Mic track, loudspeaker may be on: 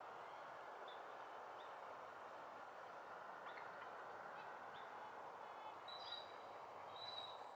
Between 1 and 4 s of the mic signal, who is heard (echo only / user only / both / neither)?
neither